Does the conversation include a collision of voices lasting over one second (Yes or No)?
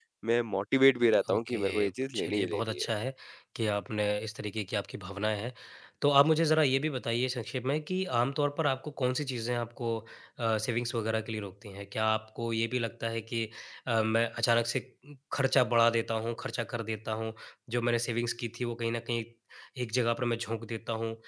Yes